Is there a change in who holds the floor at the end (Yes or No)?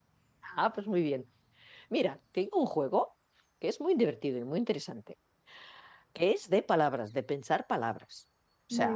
No